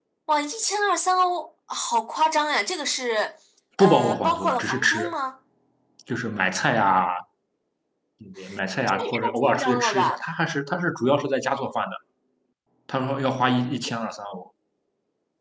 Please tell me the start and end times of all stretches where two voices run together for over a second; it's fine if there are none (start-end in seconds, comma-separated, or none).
3.8-5.1, 8.9-10.2